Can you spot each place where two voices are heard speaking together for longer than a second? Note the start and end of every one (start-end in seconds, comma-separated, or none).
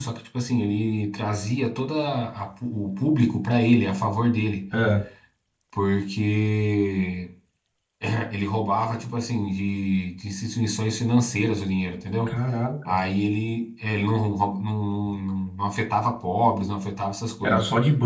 none